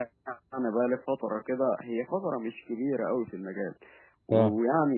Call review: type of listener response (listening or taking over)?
listening